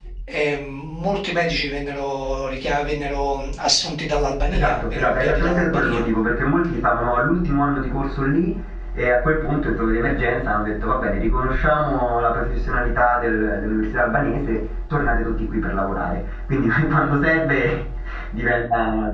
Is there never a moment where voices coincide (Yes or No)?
No